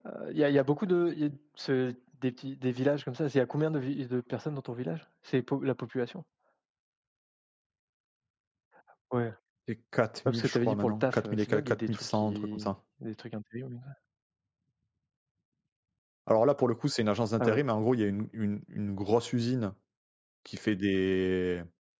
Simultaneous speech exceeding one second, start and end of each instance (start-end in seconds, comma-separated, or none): 10.2-12.7